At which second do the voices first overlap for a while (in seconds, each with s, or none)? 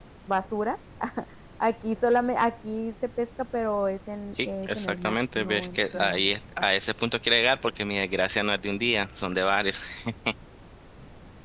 4.3 s